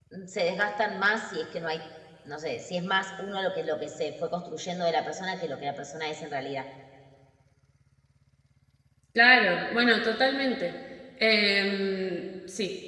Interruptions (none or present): none